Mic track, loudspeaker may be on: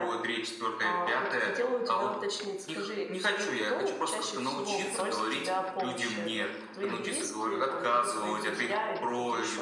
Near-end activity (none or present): none